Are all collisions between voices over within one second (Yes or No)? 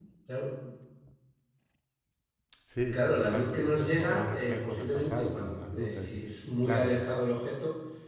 No